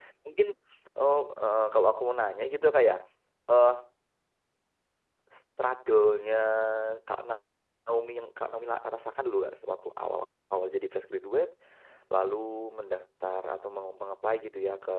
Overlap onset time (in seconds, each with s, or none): none